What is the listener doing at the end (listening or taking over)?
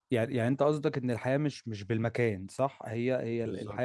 listening